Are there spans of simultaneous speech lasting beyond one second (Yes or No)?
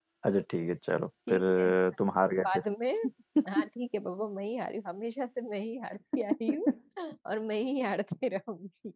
No